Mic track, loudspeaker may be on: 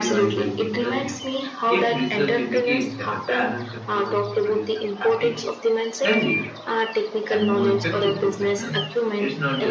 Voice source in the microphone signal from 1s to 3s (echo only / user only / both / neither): both